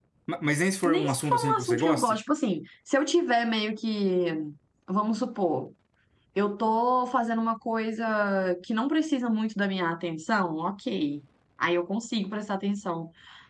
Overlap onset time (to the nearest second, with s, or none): 1 s